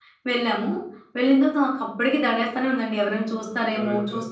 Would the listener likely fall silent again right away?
No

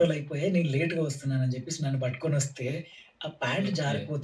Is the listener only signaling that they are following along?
Yes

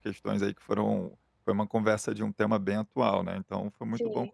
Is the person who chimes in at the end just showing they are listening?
No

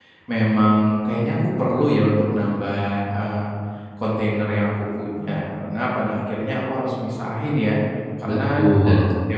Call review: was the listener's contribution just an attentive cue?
Yes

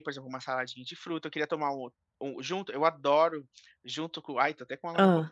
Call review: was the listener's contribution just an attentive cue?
Yes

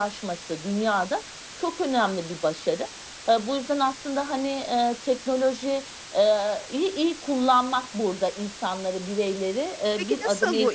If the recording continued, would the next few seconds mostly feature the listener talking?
Yes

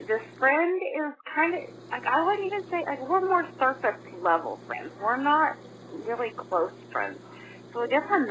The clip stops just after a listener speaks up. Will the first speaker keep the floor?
Yes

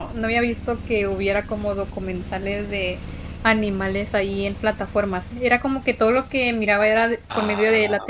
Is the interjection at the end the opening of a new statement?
No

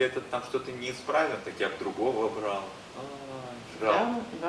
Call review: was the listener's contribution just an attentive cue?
No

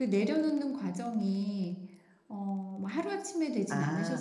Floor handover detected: Yes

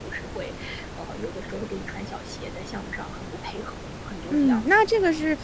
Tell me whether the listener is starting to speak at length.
Yes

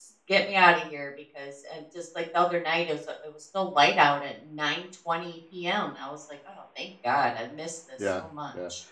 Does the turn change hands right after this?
Yes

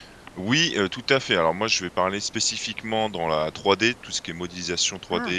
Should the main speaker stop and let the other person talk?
No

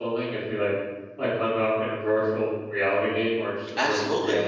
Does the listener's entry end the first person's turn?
Yes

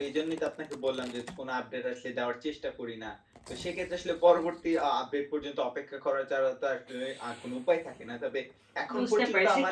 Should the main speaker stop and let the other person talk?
Yes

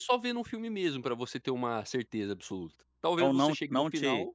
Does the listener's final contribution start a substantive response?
Yes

